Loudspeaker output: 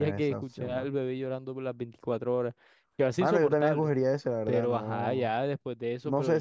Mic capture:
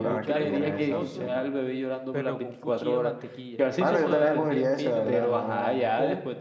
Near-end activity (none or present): present